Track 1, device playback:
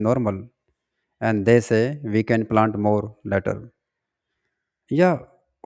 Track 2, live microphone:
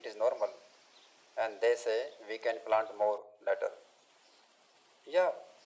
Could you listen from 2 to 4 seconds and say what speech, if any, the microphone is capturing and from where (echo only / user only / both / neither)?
echo only